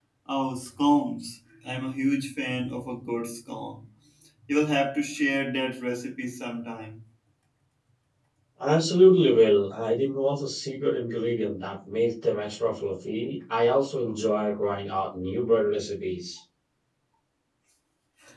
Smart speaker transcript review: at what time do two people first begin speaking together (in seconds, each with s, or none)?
none